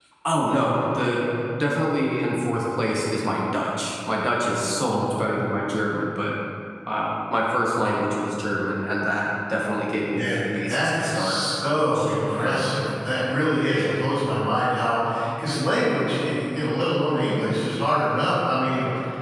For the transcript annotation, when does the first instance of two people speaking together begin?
10.1 s

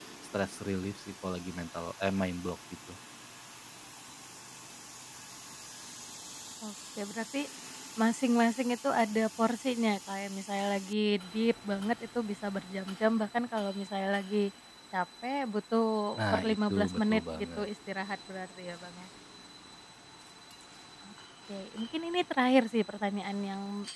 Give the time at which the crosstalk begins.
16.3 s

